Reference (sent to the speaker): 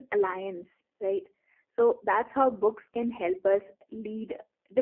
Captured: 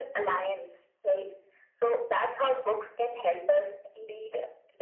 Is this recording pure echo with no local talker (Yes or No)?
Yes